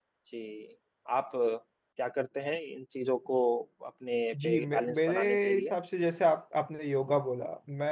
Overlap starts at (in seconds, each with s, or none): 4.4 s